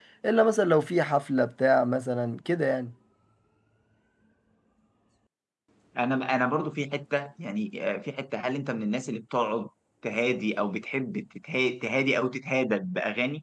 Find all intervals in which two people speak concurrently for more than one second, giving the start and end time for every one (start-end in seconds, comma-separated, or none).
none